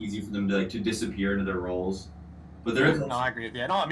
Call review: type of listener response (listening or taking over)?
taking over